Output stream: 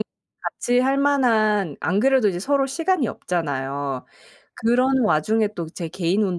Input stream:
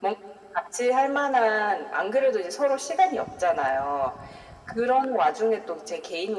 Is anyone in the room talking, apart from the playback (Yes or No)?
No